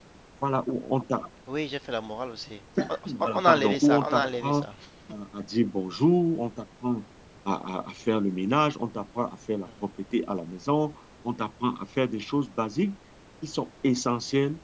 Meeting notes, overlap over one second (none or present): present